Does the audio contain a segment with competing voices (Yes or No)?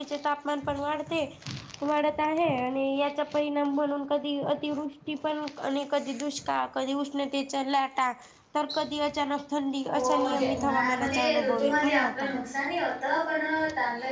Yes